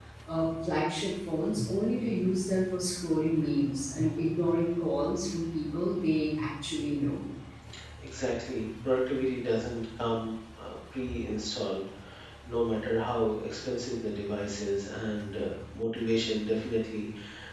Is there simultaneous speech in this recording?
No

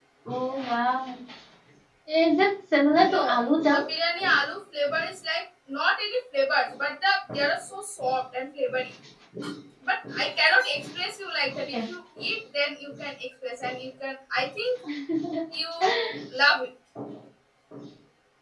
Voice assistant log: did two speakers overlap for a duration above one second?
No

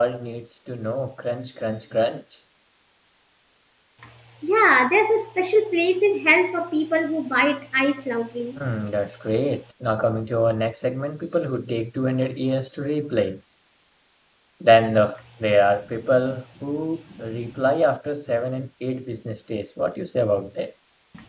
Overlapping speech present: No

